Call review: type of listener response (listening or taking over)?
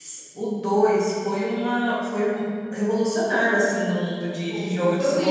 taking over